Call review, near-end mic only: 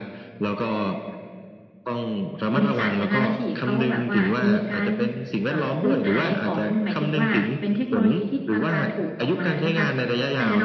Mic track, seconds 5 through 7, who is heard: both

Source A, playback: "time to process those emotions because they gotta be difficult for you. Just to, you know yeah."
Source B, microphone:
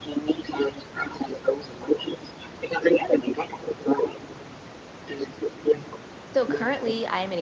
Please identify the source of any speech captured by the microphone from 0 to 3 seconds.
echo only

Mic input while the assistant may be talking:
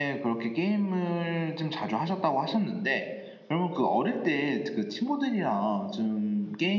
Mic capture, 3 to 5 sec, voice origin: user only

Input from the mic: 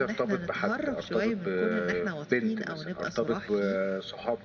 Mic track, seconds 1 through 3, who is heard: echo only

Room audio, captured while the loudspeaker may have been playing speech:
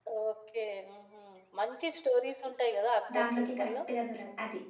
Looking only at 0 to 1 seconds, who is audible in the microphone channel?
echo only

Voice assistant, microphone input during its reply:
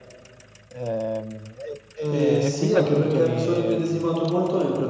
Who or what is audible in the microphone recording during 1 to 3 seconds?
both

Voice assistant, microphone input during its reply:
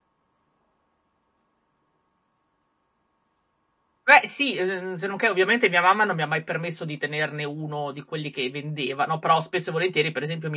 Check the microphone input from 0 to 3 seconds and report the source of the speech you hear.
neither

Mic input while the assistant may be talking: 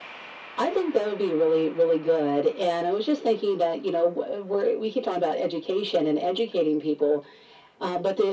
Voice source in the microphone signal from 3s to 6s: echo only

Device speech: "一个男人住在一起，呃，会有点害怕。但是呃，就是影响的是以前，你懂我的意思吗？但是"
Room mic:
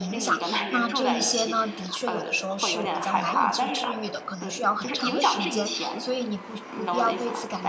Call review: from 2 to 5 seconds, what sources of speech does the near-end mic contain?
both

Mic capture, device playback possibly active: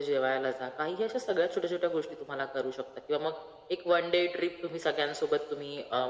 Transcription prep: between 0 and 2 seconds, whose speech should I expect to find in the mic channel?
echo only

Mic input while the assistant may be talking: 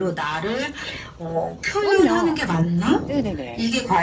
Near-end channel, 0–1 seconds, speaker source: echo only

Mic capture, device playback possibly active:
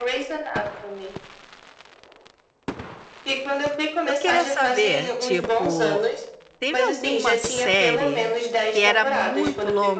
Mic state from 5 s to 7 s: both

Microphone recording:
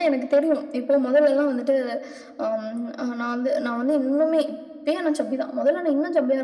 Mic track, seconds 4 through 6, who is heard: echo only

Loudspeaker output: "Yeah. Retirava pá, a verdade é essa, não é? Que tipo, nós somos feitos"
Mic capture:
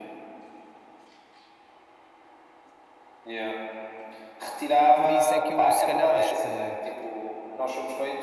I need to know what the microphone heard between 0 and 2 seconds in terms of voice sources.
neither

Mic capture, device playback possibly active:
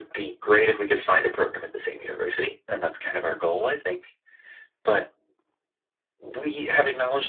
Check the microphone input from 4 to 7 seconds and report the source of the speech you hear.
echo only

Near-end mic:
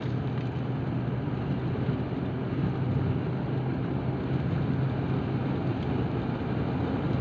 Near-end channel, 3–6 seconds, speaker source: neither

